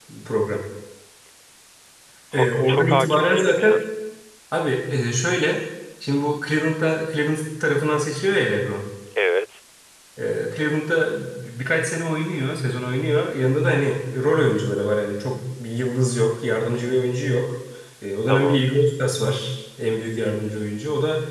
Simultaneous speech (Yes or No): Yes